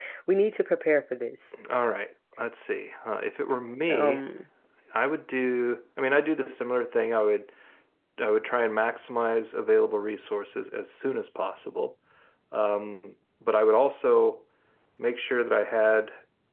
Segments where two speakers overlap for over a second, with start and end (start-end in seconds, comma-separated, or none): none